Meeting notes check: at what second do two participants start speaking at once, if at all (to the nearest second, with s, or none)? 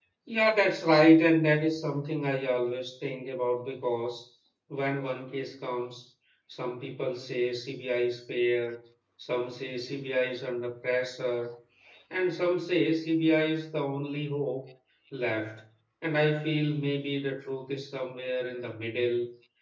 none